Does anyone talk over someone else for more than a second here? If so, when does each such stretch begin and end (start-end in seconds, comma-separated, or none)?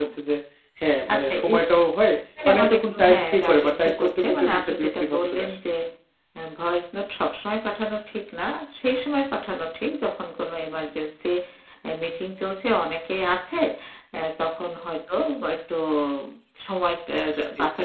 2.5-5.5